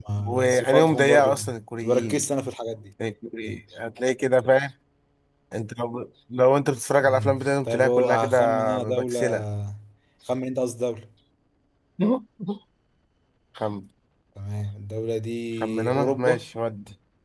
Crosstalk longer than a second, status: present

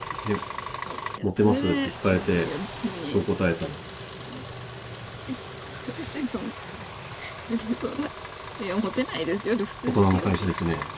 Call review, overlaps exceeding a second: present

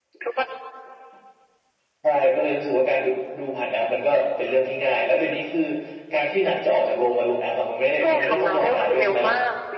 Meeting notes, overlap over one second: present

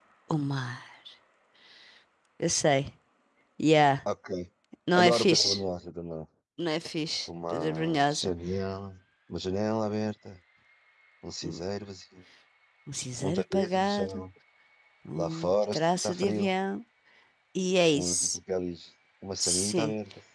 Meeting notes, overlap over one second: present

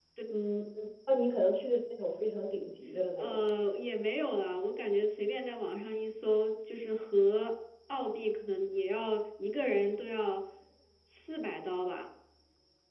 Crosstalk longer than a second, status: none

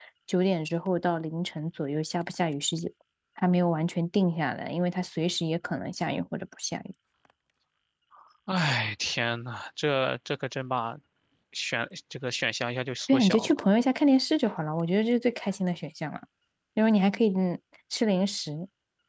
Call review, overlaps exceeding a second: none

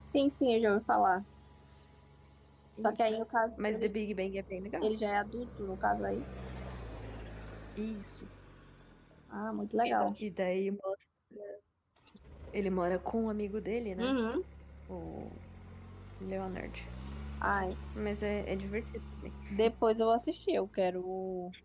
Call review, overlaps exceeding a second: none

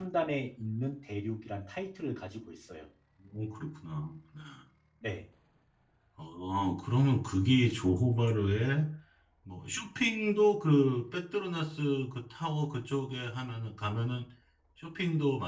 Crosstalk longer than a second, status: none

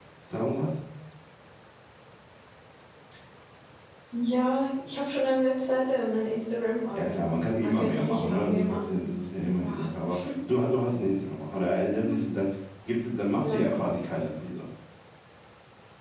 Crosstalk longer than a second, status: present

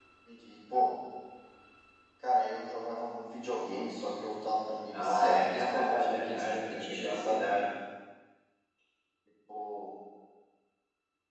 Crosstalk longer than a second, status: present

